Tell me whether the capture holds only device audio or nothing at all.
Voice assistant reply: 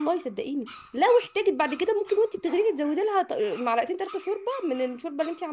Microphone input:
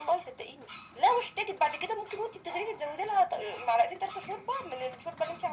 Yes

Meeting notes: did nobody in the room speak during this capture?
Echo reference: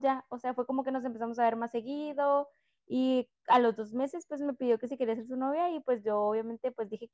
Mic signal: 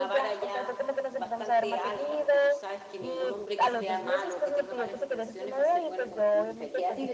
No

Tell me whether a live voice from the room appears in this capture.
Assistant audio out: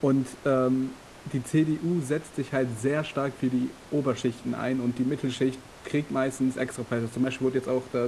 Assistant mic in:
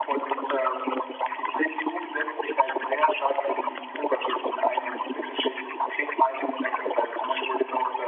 No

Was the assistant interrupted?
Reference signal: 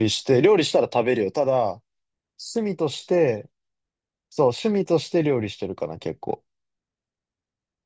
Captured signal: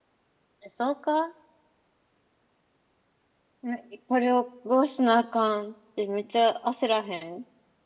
Yes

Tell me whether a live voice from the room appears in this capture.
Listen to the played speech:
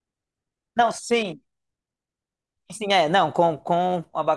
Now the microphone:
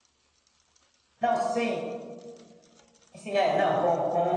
No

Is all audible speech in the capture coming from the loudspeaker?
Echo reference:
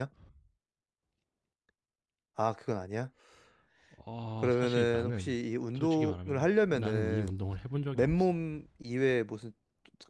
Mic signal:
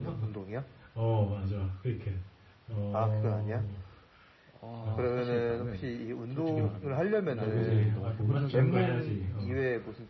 No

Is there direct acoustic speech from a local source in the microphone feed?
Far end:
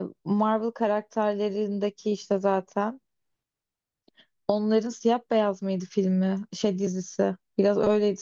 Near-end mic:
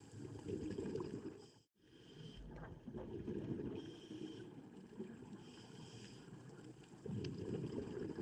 No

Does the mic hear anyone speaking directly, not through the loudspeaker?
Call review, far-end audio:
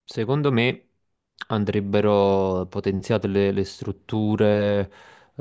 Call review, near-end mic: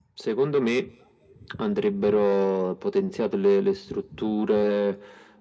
No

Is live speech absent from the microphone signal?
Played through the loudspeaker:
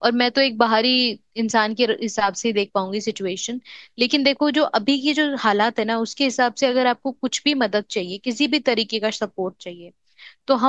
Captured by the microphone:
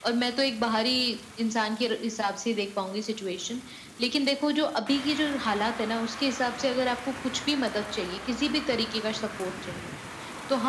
Yes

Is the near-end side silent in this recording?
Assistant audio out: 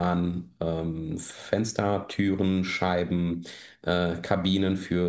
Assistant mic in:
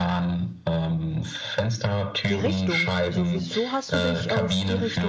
No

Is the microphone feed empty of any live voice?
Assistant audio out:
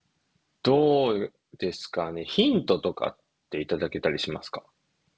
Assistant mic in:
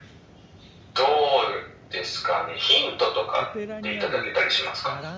No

